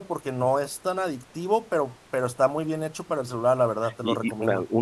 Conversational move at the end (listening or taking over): taking over